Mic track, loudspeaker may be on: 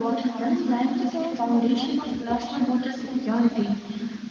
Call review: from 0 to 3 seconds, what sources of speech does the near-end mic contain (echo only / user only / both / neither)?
both